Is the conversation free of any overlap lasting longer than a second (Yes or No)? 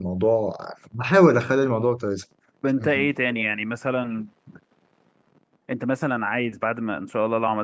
Yes